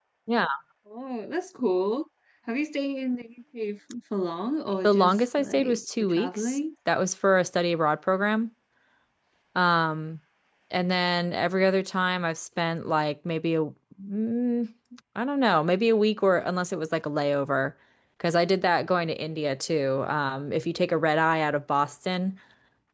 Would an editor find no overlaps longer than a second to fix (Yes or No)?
No